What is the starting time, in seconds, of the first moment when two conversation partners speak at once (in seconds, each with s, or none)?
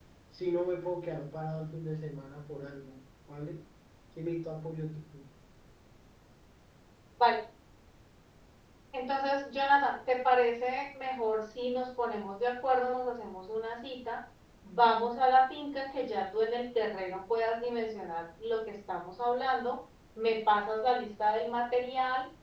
none